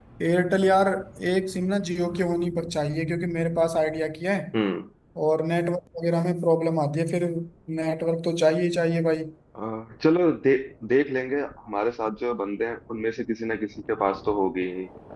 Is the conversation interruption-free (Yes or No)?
Yes